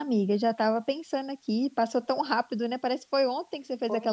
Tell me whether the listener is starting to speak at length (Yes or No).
Yes